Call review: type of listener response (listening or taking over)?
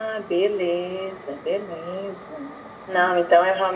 listening